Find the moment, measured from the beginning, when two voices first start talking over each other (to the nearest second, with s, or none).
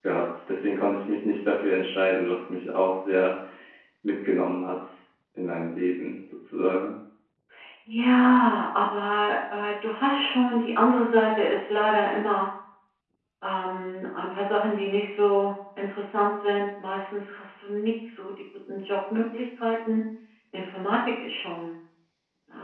none